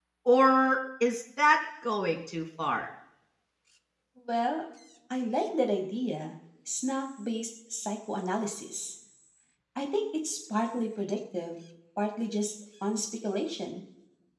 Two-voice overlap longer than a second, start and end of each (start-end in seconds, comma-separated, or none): none